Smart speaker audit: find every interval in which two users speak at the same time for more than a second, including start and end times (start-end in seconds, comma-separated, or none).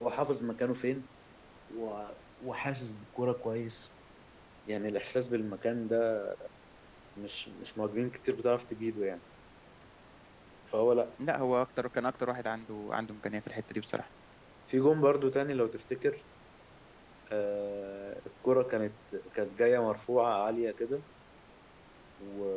none